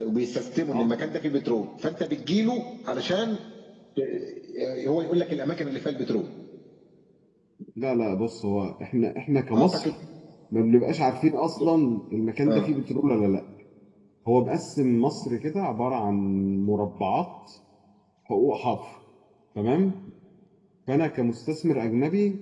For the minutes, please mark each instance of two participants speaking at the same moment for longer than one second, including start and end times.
none

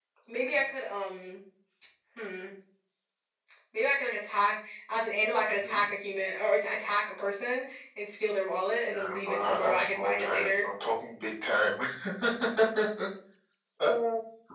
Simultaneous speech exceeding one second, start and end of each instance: 8.8-10.6

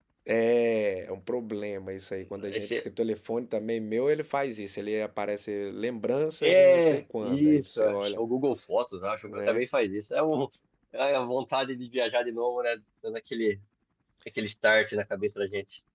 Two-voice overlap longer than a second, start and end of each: 6.4-8.2

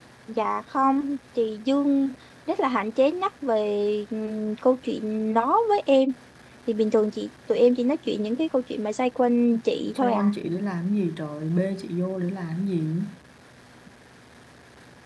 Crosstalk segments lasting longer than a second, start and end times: none

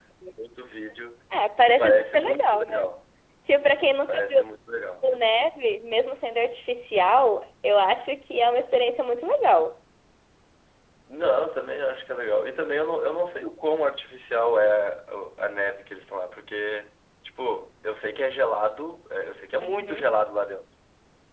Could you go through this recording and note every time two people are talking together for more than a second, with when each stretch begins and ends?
1.6-2.9

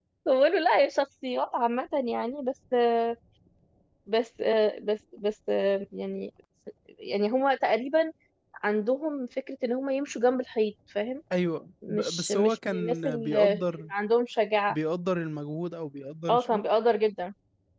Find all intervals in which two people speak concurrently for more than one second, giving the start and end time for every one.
11.9-13.6

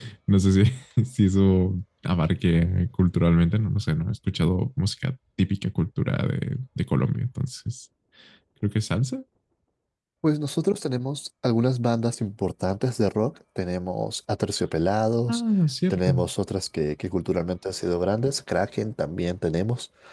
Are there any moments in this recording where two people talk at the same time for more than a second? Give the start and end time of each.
none

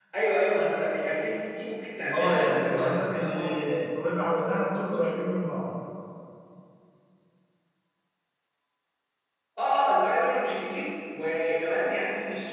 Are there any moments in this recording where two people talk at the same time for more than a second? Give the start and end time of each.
2.1-3.7

